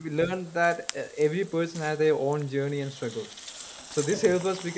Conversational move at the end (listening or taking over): listening